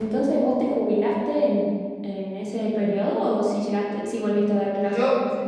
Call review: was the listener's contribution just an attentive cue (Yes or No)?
No